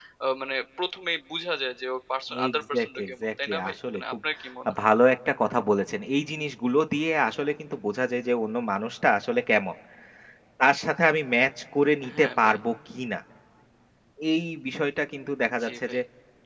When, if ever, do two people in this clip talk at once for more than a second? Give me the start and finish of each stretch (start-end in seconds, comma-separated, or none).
2.5-4.1